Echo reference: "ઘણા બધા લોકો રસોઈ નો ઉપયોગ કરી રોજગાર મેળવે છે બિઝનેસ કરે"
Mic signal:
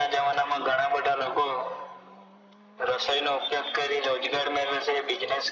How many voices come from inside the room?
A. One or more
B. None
B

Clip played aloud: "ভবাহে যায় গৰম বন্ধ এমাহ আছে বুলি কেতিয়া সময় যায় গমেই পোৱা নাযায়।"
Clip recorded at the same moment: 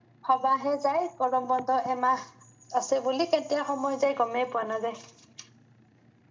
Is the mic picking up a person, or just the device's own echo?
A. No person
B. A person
A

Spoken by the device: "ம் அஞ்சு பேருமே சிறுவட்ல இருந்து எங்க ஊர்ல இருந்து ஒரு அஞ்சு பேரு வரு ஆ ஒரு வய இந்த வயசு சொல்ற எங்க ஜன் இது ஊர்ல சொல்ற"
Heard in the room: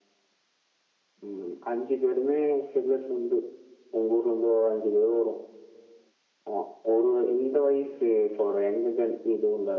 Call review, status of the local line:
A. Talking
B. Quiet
B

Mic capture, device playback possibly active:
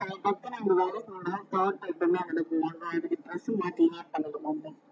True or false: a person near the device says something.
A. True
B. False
B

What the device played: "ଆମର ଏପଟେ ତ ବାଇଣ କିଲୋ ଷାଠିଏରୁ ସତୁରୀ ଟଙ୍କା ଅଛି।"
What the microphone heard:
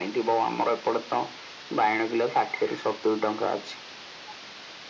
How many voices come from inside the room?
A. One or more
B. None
B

